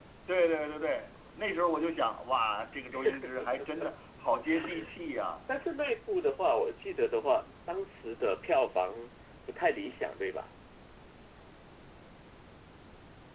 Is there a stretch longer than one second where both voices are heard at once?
No

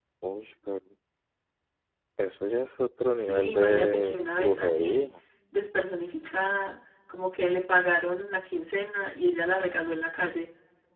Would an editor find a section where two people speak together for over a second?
Yes, from 3.2 s

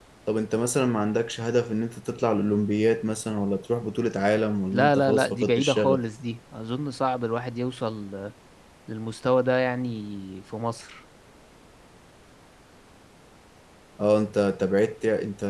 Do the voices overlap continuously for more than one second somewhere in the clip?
Yes, from 4.7 s

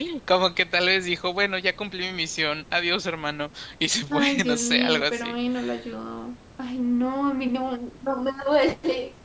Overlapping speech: Yes, from 4.1 s

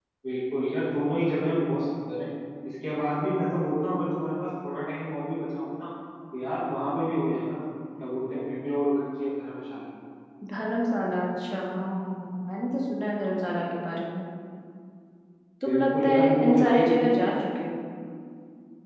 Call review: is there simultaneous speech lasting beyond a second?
Yes, from 15.7 s

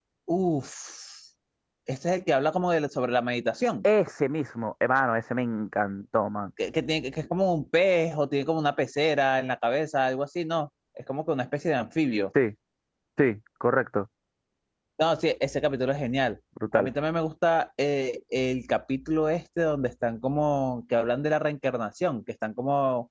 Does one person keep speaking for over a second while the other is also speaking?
No

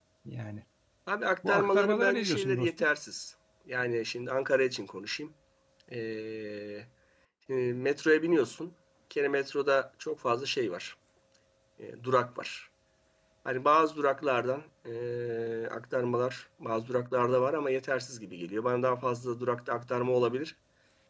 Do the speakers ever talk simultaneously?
Yes, from 1.5 s

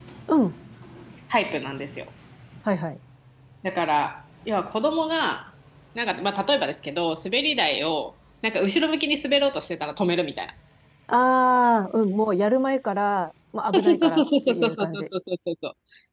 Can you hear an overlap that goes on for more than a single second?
Yes, from 13.7 s

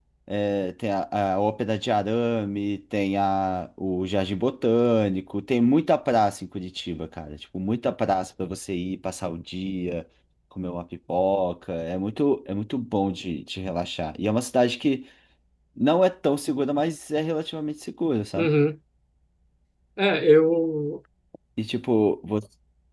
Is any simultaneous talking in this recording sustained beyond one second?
No

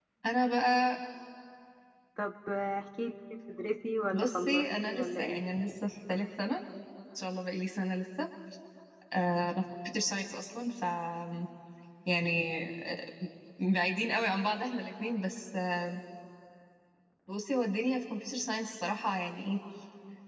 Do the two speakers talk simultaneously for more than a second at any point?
Yes, from 4.1 s

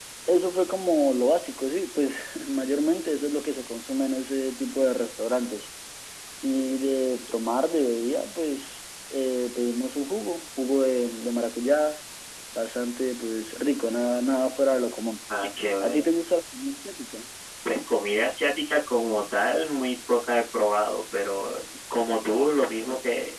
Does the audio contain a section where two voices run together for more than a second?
No

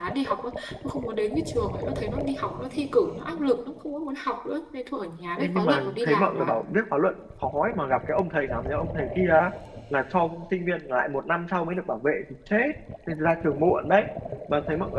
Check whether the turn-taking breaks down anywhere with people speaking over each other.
Yes, from 5.4 s

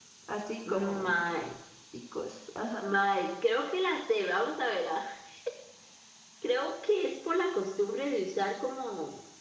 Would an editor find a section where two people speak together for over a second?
No

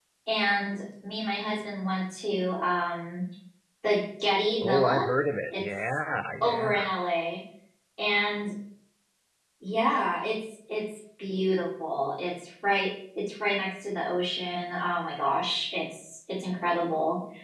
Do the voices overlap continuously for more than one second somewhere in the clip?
No

